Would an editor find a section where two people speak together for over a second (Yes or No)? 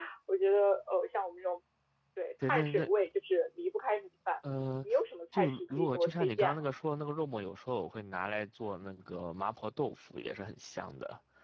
Yes